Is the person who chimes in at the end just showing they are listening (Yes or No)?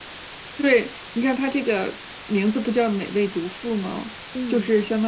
Yes